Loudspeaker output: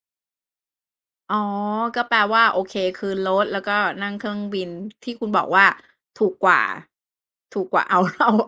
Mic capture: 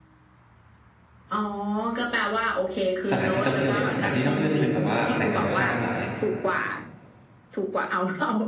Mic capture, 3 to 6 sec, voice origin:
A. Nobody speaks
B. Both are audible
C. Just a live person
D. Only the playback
B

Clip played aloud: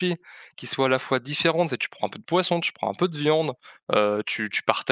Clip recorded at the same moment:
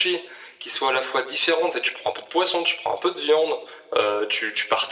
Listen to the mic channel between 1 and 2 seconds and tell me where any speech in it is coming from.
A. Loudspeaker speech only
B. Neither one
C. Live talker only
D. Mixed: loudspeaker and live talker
A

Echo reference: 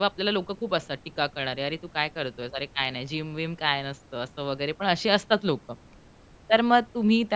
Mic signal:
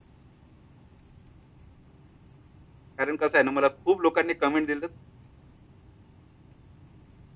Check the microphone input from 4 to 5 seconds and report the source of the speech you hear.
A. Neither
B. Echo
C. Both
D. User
D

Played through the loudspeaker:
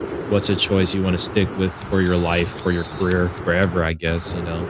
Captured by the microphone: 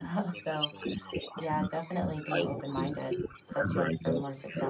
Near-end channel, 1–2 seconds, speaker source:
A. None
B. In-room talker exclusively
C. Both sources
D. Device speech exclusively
C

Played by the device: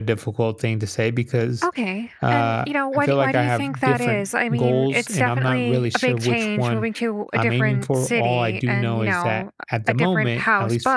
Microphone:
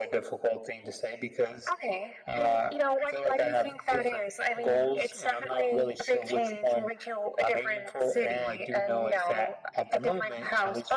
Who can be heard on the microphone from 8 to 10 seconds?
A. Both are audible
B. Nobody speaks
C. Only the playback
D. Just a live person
C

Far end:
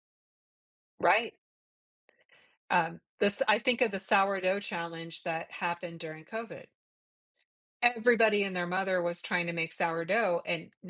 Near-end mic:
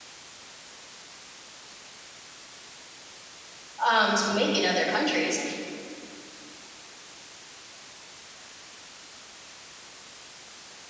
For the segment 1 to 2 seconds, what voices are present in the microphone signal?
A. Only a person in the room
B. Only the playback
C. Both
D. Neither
D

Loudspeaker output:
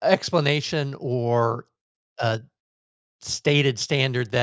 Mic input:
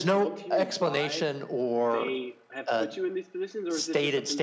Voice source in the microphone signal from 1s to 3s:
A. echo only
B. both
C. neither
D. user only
B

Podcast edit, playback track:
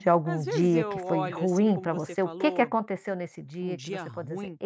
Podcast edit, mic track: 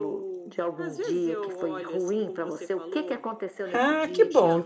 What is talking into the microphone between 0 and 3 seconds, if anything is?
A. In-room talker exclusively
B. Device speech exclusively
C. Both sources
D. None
B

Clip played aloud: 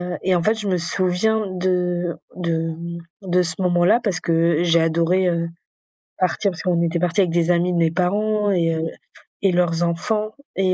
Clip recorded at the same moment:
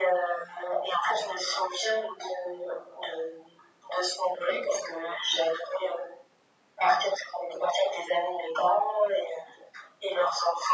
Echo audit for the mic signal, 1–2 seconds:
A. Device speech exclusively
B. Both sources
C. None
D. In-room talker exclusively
A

